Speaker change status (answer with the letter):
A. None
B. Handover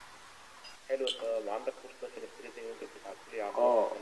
B